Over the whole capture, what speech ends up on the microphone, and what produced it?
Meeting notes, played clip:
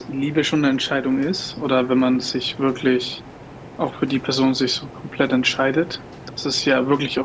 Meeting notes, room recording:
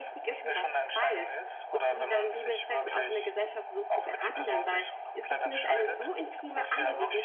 both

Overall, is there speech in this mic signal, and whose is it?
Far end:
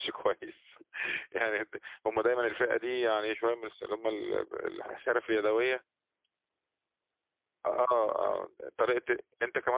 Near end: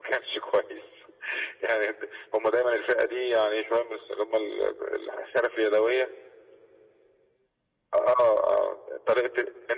echo only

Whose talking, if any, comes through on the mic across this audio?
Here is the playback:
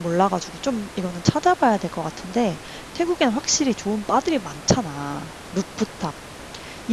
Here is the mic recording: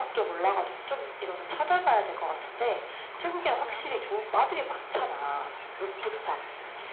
both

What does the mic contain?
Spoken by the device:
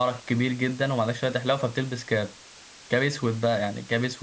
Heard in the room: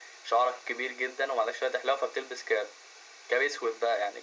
echo only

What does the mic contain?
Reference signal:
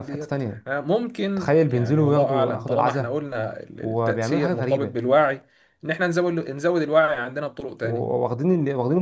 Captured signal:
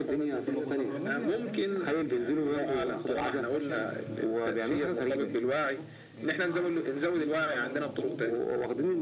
both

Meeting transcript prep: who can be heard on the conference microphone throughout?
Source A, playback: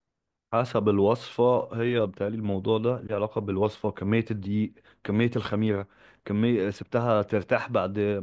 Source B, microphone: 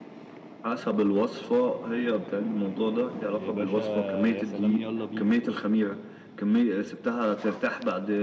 both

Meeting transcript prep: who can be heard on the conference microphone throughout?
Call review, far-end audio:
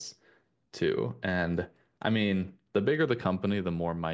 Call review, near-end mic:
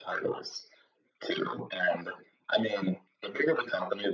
echo only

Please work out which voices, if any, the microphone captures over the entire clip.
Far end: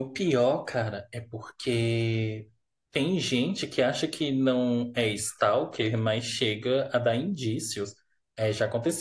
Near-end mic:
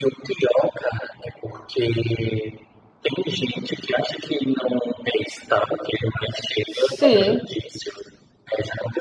both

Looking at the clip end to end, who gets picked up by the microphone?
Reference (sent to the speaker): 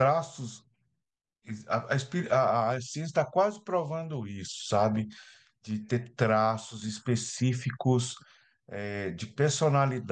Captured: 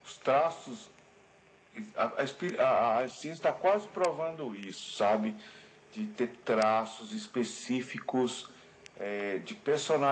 echo only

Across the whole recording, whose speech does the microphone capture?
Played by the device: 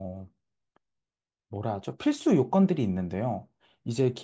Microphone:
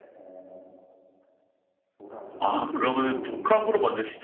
both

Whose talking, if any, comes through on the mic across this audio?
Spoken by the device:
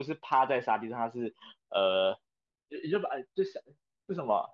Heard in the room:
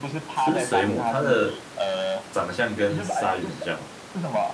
both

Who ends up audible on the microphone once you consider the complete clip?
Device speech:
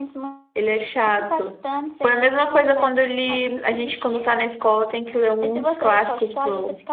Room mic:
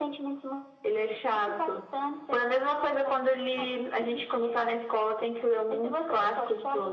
echo only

